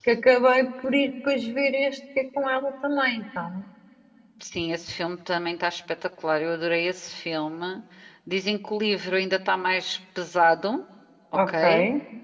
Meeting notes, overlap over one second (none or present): none